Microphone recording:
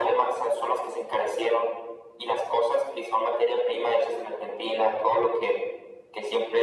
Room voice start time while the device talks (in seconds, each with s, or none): none